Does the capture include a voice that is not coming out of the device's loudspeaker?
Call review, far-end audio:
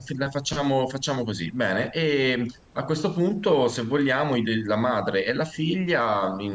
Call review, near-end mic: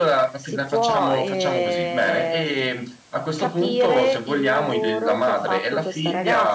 Yes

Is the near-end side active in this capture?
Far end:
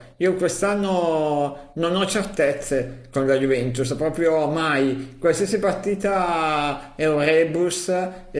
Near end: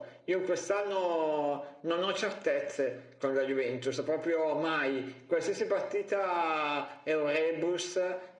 No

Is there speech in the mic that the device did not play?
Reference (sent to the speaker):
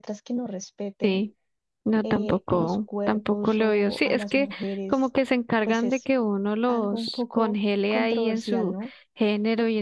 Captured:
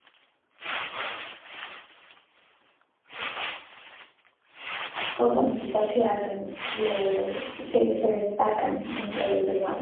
Yes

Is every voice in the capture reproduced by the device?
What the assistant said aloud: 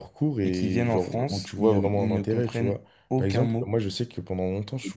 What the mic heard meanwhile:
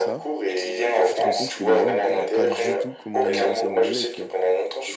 No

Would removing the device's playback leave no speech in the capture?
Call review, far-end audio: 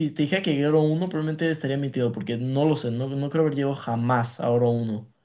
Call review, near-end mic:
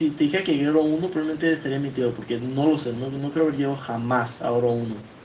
Yes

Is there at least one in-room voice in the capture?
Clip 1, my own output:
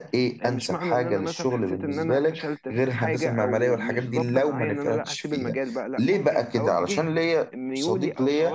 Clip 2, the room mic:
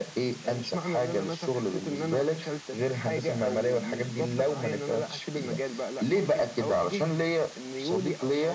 No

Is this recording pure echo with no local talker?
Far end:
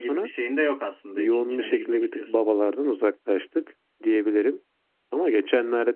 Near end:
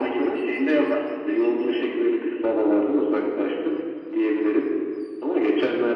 Yes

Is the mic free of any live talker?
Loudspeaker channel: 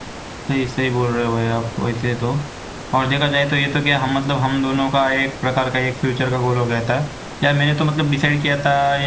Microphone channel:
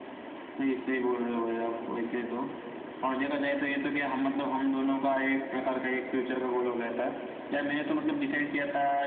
Yes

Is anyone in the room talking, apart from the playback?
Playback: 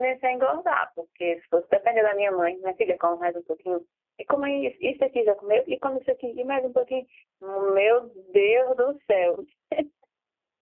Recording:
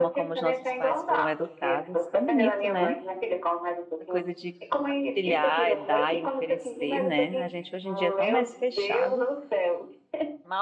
Yes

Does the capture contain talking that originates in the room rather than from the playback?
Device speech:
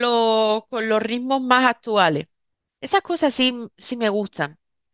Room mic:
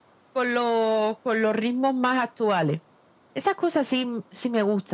No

